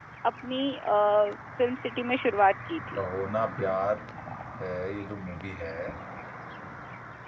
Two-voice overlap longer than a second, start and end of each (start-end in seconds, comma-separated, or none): none